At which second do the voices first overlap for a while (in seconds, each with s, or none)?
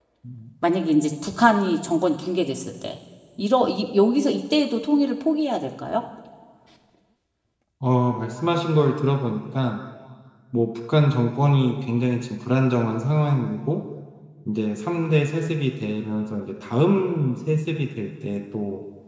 none